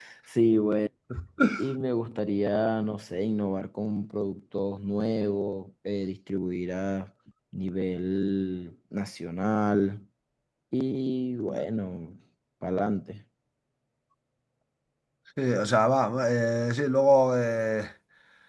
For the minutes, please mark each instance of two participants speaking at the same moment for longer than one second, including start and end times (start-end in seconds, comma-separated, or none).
none